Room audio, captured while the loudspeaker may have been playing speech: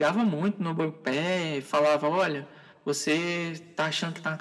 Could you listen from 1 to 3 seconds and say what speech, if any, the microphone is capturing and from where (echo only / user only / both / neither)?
echo only